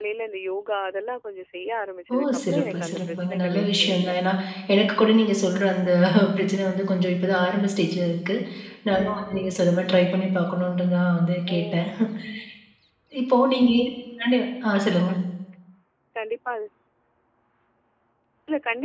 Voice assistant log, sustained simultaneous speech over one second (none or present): present